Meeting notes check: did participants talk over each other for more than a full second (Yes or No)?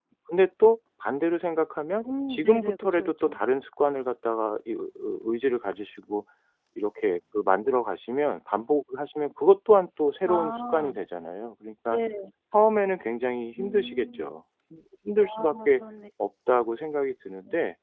Yes